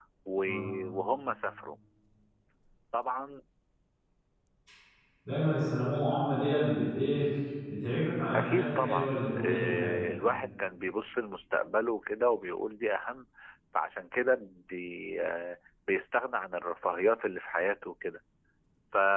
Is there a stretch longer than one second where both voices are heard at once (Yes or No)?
Yes